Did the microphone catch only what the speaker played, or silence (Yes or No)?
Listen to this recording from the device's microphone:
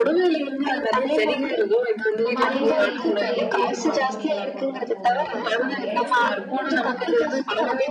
No